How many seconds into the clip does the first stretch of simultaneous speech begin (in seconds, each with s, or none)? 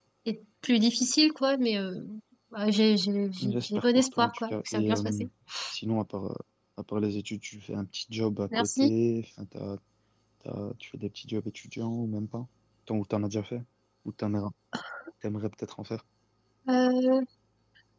3.5 s